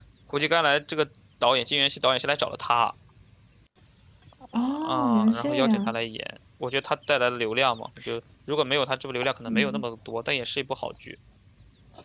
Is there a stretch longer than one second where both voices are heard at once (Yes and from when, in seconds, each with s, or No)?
Yes, from 4.6 s